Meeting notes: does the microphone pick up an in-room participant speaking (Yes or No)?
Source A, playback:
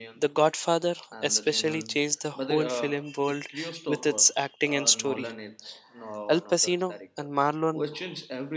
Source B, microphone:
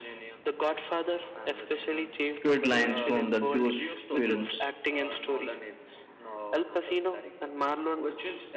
Yes